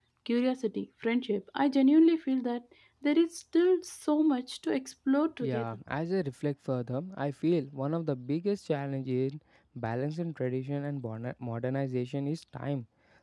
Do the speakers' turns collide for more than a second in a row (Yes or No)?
No